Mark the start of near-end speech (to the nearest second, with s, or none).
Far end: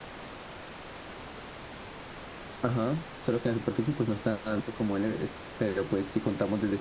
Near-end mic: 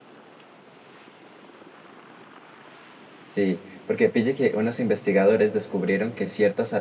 3 s